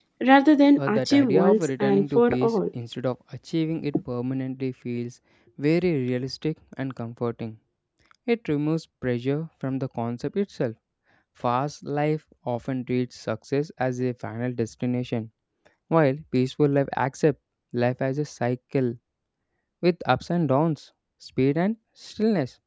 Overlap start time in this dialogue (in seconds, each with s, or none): 0.8 s